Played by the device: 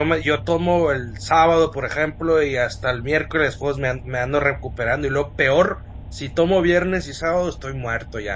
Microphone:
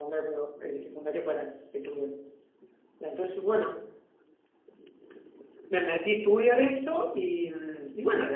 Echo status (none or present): none